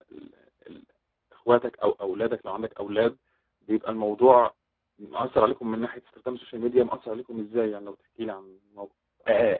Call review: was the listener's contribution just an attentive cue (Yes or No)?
No